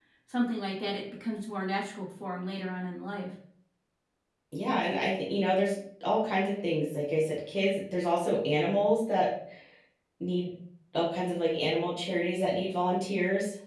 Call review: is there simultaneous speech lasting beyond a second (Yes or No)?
No